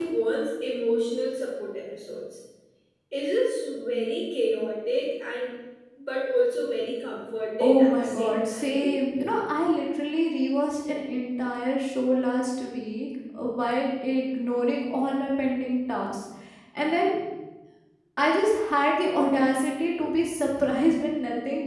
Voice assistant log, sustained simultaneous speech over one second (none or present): present